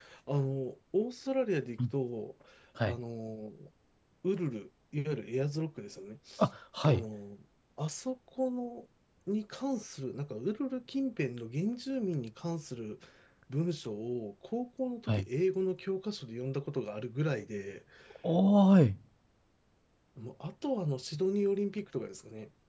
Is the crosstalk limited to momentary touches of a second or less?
Yes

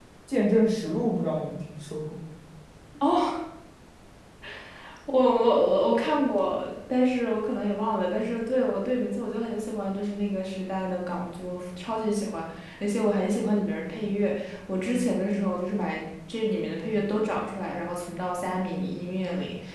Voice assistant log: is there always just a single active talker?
Yes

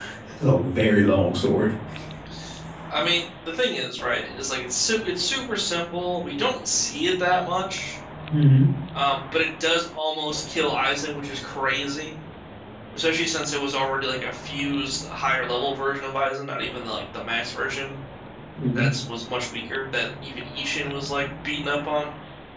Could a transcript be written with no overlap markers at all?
Yes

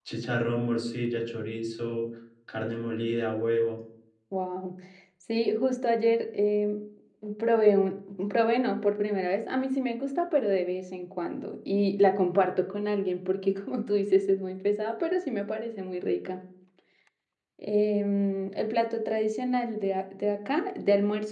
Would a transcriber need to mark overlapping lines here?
No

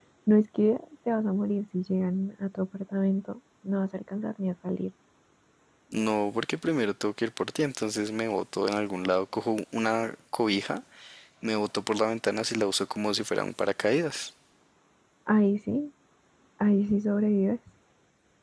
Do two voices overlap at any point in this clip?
No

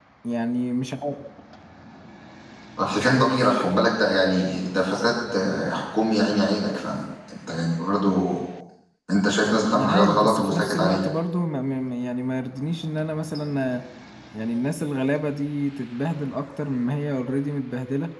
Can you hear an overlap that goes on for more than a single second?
Yes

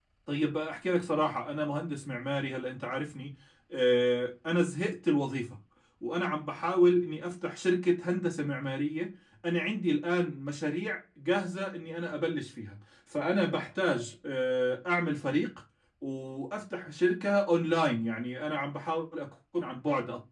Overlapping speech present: No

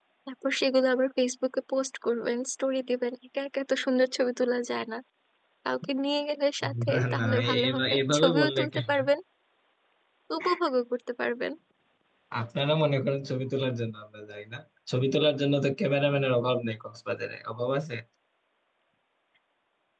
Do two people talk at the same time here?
Yes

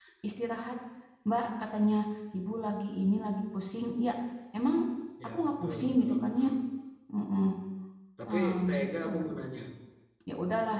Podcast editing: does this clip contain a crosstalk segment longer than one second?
Yes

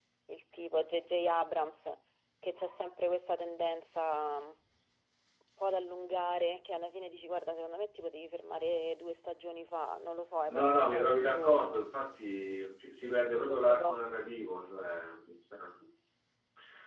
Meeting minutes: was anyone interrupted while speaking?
Yes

